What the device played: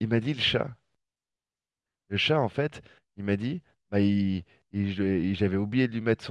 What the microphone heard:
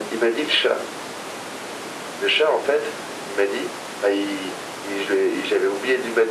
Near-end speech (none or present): none